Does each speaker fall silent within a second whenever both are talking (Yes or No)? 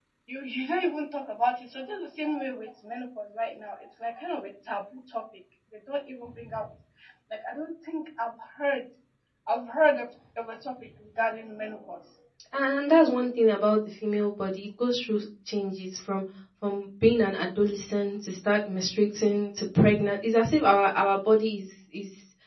Yes